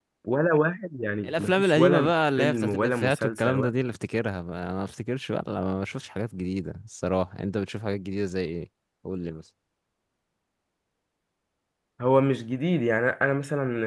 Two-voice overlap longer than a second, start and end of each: 1.2-3.6

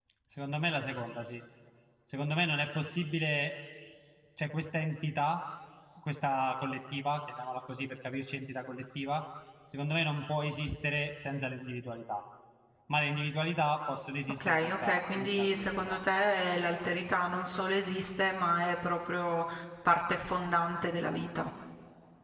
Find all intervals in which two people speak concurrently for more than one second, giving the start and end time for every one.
14.3-16.0

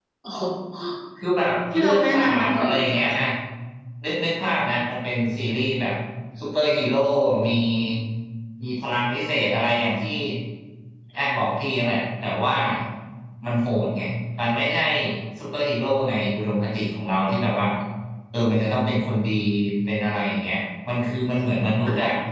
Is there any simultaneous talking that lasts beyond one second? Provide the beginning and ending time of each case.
1.7-3.0

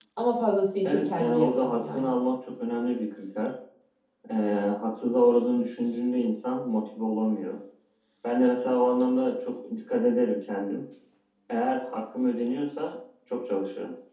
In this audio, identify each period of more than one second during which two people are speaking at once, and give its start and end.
0.8-2.1

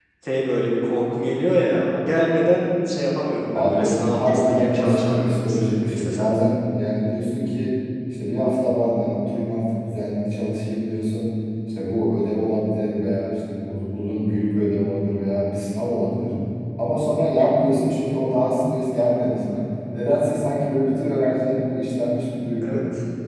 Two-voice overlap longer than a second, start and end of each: 3.5-6.5

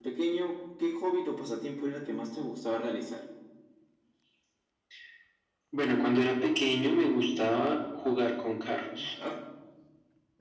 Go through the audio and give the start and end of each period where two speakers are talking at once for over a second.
none

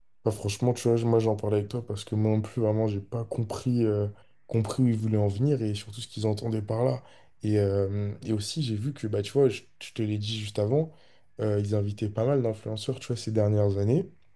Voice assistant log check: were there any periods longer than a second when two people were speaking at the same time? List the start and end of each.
none

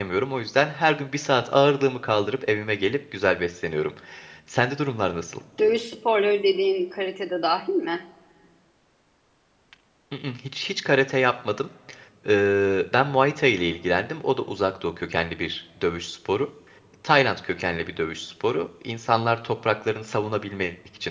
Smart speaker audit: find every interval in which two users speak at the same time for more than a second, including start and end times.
none

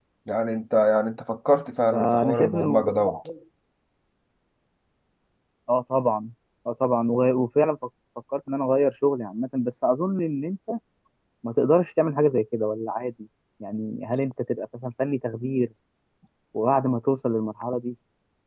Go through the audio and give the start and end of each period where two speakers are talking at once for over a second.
1.9-3.2

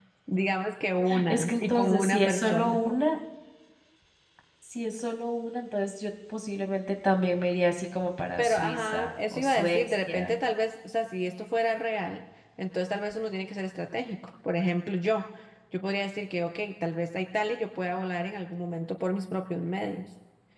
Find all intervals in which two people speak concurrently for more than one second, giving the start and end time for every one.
1.3-2.8, 8.4-10.3

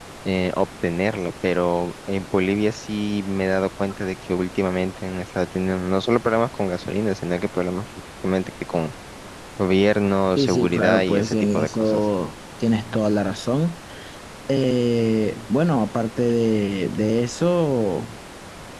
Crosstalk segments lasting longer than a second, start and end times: 10.4-12.0

